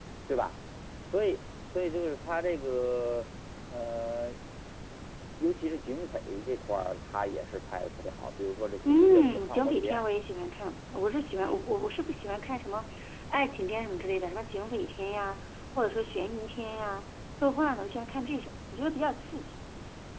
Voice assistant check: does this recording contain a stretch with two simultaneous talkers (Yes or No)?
Yes